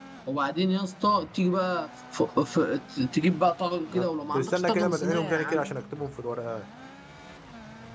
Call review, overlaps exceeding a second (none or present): present